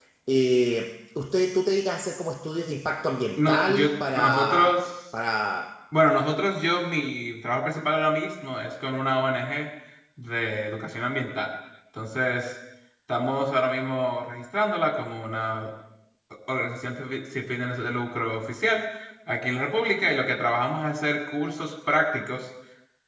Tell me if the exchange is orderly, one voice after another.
No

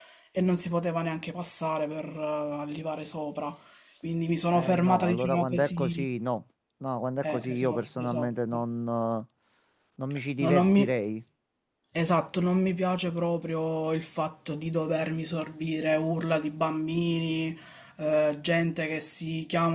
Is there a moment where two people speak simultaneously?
Yes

